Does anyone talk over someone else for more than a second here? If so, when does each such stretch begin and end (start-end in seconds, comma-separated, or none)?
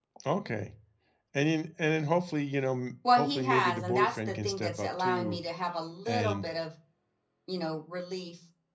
3.1-5.4